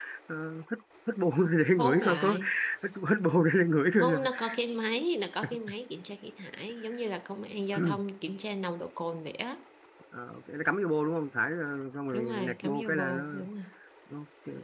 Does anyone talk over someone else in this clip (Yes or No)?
Yes